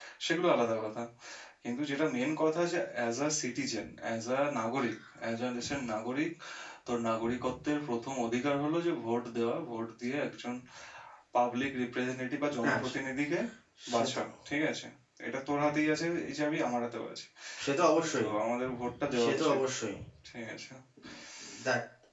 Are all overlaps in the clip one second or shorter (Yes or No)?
Yes